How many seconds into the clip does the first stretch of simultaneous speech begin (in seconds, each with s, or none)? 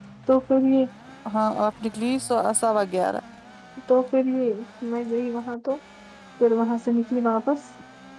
none